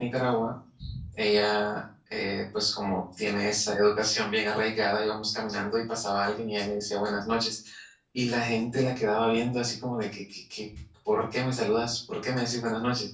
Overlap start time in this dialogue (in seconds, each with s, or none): none